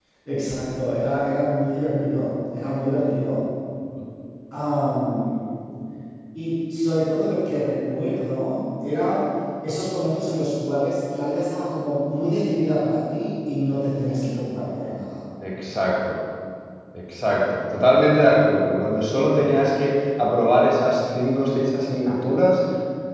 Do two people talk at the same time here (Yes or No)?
No